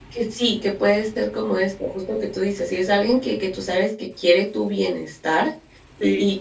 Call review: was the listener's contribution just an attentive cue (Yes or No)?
Yes